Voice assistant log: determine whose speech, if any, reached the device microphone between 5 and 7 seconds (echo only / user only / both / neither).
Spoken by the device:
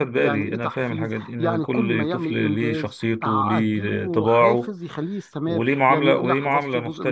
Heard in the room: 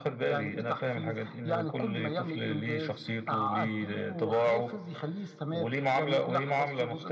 echo only